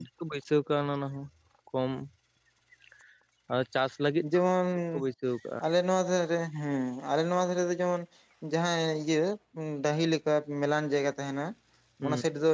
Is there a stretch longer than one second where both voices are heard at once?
No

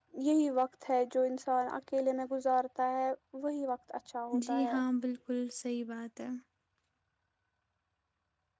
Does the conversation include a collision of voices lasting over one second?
No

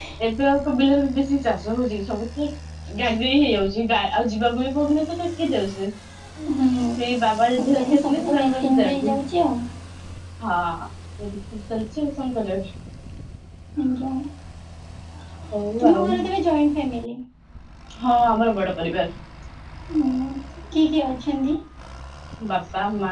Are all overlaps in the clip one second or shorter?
No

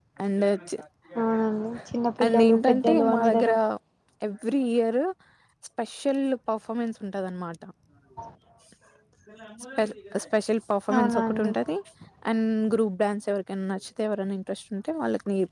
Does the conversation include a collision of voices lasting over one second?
Yes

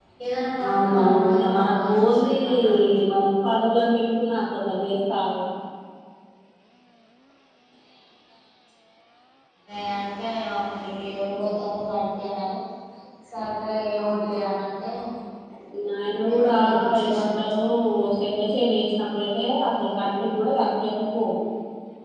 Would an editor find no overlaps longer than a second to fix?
No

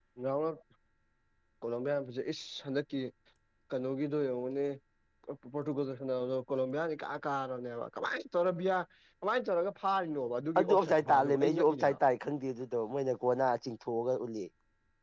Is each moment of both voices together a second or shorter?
No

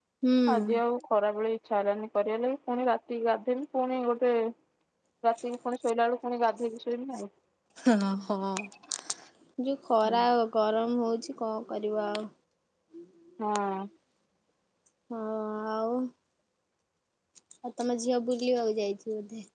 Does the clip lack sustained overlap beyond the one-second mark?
Yes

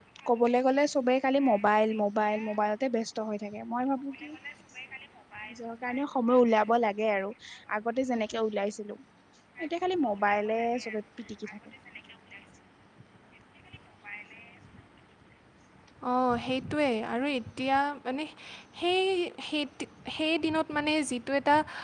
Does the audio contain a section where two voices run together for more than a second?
No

